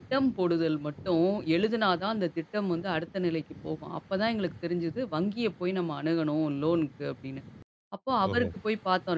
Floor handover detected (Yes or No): No